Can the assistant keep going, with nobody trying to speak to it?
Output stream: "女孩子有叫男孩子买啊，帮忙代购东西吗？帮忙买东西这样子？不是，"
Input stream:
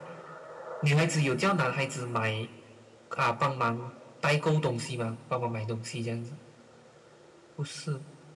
Yes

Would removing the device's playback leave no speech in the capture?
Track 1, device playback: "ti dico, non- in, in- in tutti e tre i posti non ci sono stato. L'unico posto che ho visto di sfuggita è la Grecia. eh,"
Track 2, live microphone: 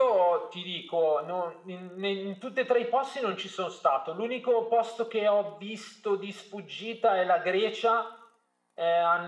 Yes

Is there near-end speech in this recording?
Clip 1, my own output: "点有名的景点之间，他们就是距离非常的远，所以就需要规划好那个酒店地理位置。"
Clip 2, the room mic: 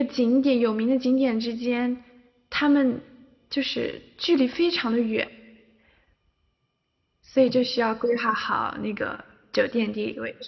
No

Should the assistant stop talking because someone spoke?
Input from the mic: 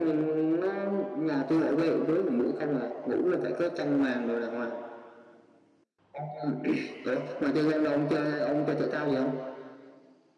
No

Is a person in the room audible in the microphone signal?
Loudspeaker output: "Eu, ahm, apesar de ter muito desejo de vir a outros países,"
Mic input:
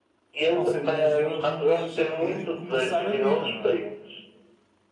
Yes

